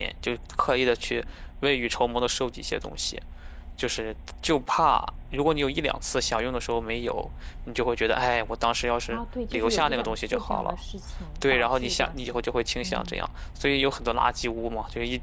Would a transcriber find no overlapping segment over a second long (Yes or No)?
No